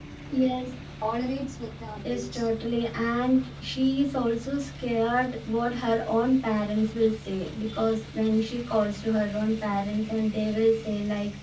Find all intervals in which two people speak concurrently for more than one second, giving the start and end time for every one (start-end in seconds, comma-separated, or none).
none